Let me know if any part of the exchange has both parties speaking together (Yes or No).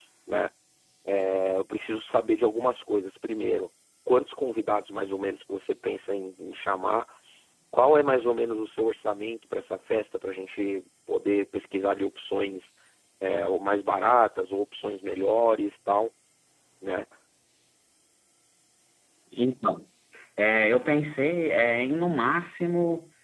No